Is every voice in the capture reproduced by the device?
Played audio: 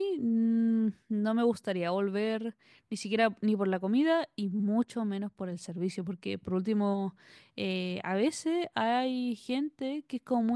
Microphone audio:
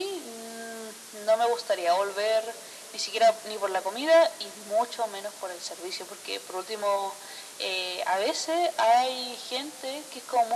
Yes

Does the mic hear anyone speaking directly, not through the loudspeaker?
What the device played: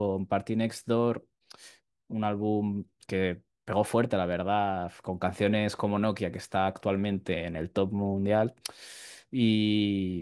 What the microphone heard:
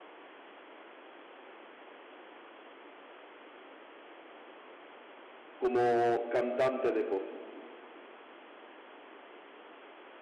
Yes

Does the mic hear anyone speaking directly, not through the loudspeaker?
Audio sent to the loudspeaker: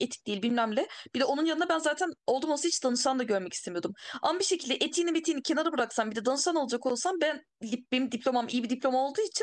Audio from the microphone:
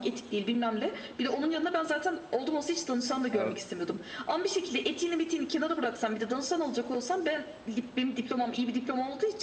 Yes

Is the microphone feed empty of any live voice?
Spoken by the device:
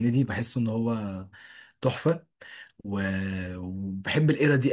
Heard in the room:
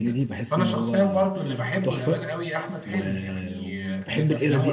No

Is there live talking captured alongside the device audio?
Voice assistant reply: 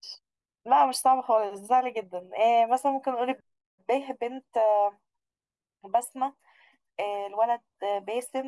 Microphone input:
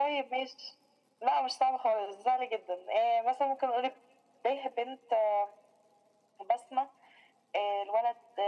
No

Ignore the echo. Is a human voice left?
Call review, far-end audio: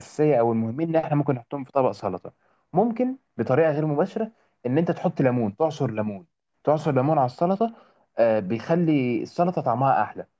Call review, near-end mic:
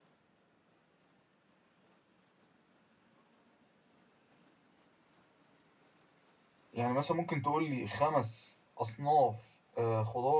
Yes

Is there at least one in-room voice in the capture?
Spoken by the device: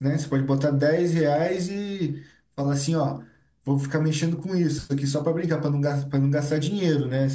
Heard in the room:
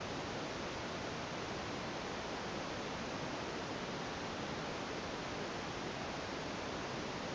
No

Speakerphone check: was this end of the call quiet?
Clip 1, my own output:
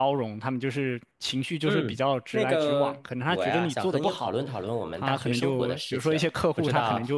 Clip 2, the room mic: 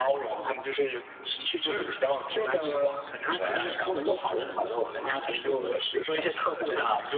Yes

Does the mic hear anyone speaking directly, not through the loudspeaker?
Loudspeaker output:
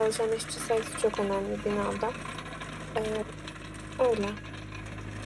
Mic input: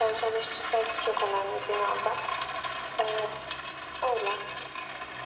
No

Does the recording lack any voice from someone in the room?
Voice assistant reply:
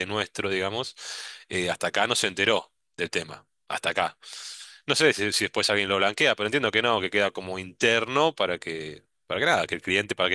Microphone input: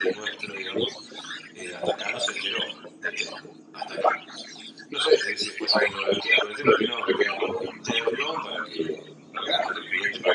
Yes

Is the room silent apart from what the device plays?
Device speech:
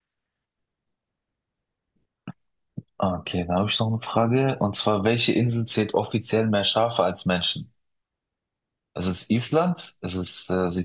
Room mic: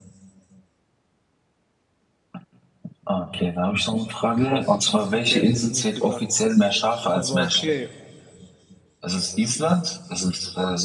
No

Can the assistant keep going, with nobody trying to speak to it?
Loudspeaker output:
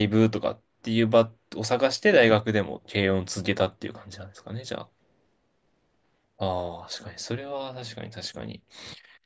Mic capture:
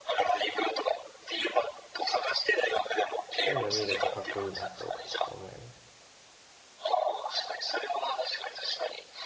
No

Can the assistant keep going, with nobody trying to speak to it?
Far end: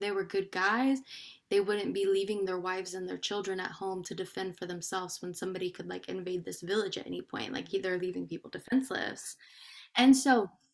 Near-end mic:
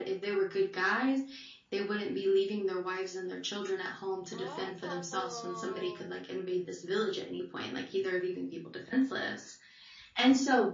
No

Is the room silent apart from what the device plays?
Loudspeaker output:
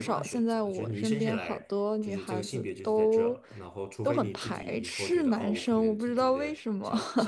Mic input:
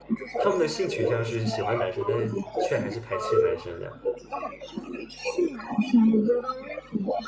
No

